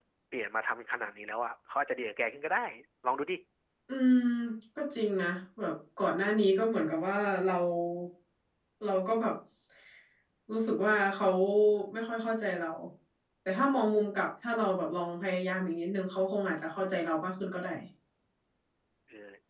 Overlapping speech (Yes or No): No